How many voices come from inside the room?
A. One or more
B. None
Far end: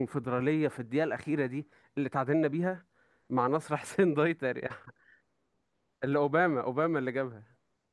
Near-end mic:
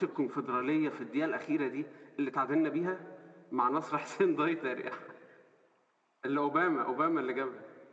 B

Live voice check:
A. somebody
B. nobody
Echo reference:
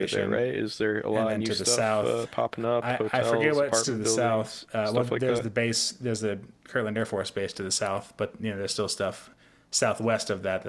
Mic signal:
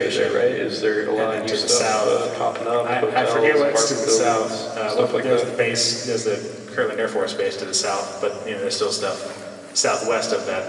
B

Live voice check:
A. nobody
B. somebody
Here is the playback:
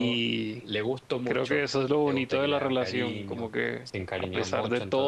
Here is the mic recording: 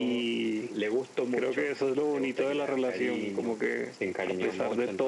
A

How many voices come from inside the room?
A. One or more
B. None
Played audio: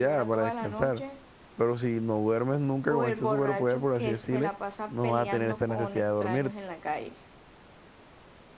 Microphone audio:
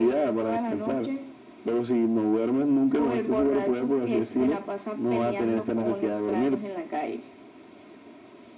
B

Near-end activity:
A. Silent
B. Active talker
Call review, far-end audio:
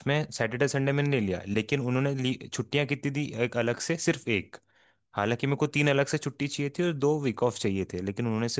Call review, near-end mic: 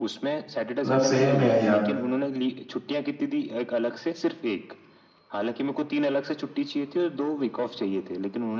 B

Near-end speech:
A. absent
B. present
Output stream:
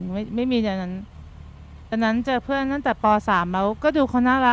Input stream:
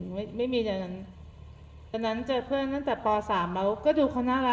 A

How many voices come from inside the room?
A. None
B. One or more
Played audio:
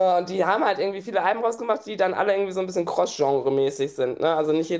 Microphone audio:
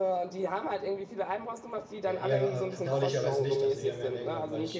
B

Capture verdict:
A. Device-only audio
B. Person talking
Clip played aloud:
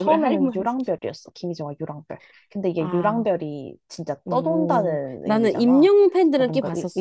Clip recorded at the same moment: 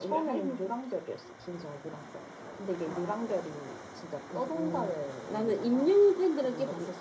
A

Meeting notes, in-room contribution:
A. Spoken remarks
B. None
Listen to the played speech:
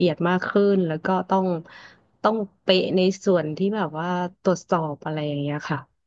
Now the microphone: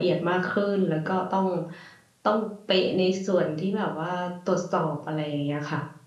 B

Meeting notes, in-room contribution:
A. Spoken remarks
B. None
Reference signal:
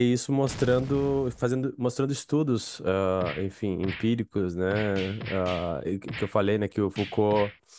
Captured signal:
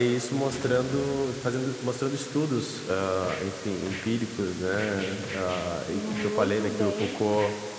A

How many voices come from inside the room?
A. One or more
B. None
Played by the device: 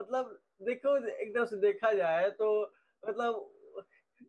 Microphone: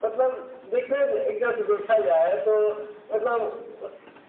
B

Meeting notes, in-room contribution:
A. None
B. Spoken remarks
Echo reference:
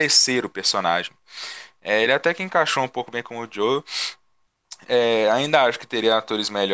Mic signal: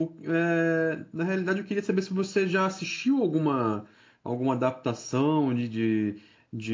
B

